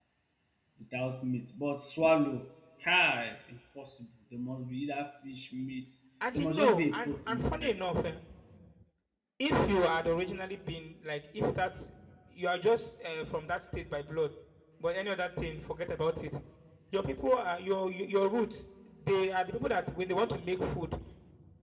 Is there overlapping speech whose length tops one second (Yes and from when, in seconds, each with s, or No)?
Yes, from 6.3 s